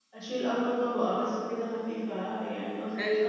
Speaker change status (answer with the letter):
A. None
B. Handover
B